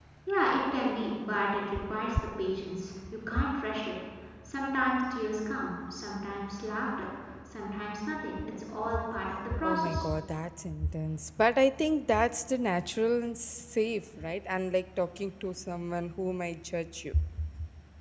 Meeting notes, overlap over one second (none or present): none